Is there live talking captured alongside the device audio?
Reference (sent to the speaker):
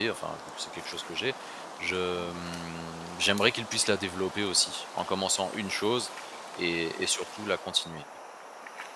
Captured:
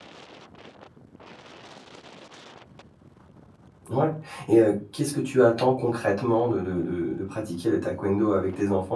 Yes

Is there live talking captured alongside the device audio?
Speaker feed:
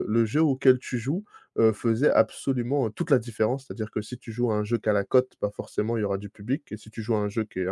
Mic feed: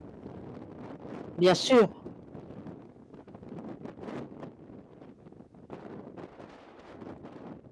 Yes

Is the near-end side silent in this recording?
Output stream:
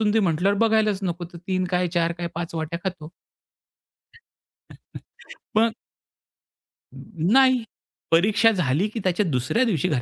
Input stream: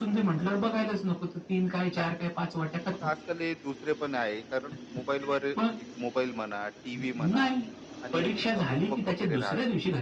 No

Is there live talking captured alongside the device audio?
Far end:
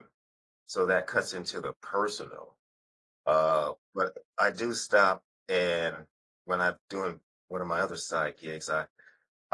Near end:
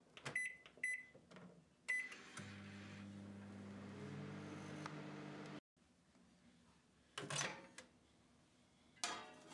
No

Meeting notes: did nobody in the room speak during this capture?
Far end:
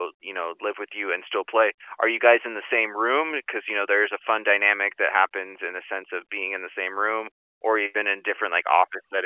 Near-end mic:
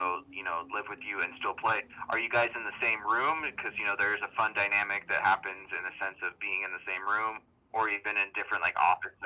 Yes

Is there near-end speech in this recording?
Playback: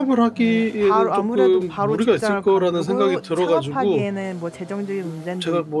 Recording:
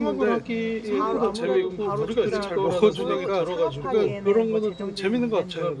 Yes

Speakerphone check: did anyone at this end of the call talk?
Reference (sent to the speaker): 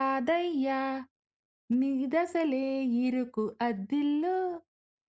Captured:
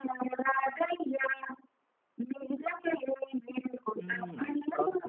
Yes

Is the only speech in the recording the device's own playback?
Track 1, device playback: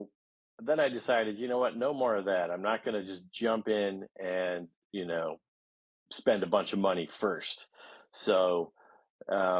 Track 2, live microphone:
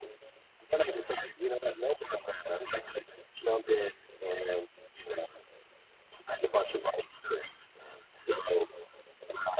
Yes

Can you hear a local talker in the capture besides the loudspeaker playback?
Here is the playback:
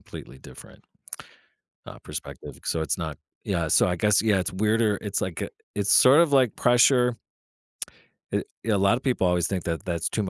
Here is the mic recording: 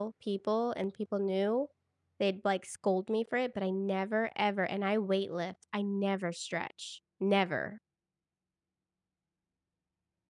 Yes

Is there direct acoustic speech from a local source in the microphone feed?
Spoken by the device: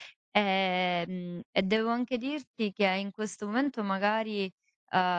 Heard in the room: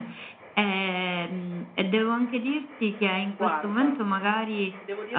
Yes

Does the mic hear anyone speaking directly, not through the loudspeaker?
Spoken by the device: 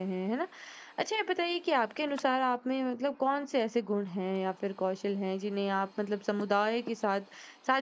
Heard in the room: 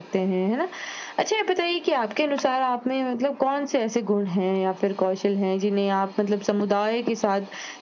No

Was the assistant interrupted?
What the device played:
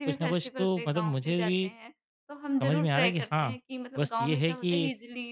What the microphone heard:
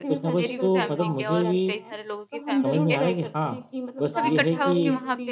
Yes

